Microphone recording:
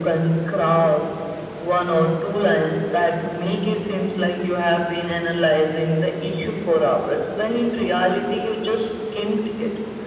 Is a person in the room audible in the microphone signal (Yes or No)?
No